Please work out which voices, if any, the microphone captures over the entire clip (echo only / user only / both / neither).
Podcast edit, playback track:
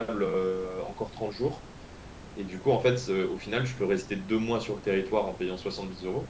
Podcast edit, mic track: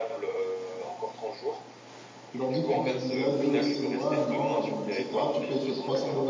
both